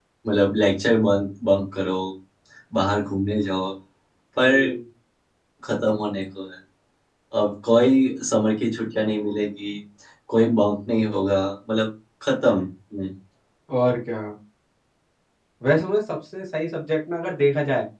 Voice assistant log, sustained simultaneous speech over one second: none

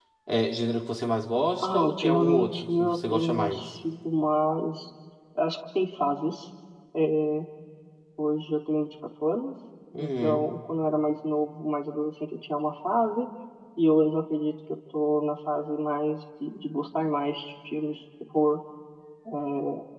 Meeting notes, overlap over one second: present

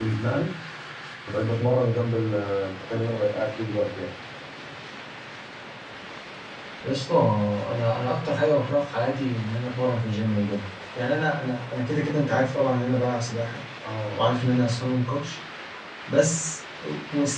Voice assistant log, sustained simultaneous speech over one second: none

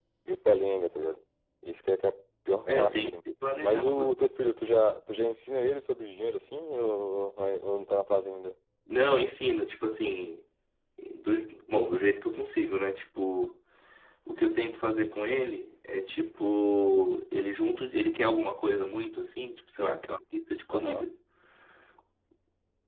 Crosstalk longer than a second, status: none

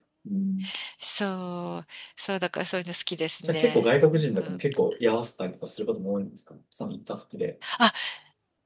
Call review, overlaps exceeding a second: none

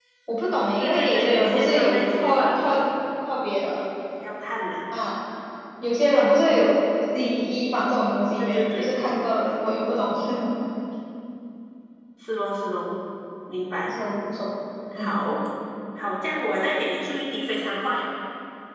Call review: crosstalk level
present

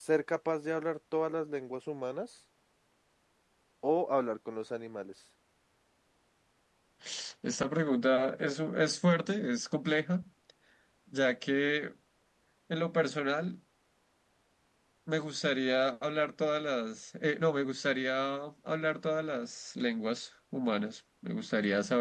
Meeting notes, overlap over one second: none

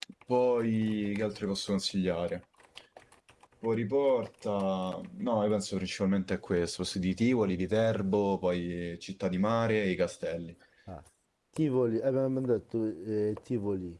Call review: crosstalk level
none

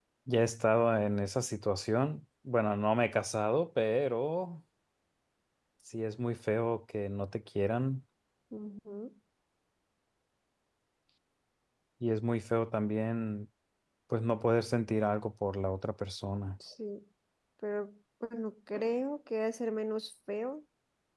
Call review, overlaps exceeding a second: none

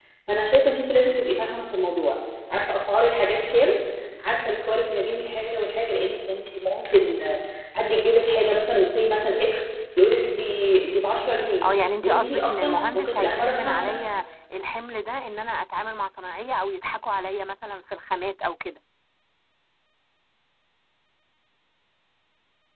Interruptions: present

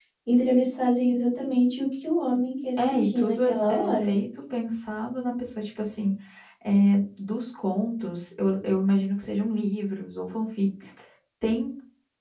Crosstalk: present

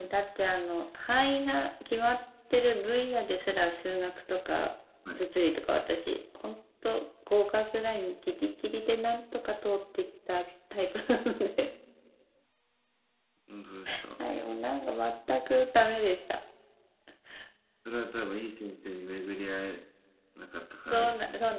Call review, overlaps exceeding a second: none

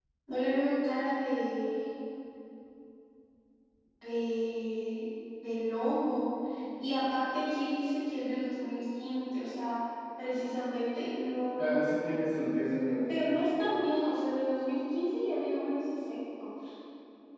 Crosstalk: none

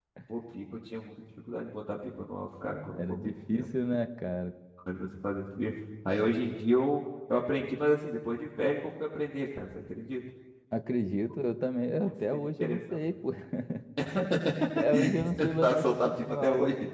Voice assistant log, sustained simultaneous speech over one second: present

